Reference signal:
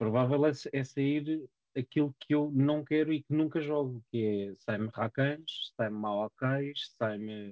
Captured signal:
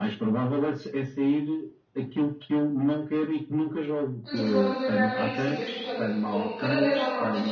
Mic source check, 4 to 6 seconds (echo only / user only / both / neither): both